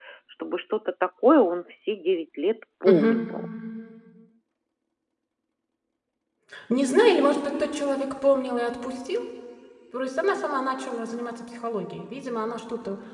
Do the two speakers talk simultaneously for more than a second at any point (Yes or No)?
No